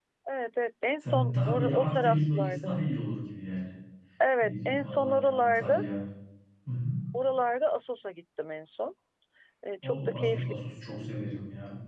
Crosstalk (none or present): present